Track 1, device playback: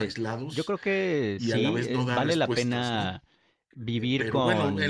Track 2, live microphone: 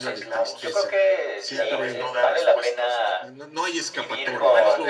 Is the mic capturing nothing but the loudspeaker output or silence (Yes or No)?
No